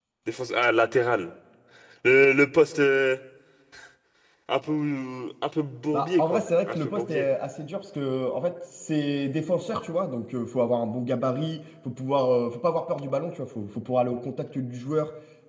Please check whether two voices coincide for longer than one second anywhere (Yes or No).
Yes